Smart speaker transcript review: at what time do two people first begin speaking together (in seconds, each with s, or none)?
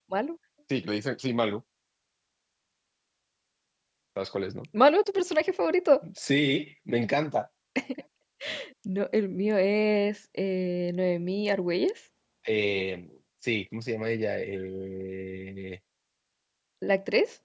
none